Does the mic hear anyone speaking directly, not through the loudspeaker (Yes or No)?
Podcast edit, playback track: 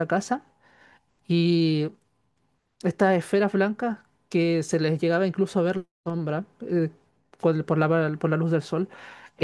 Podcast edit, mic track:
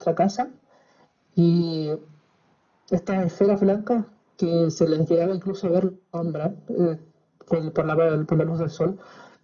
No